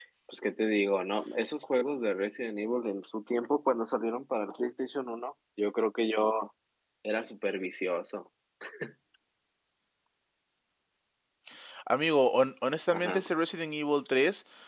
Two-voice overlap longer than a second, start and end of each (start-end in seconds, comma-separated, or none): none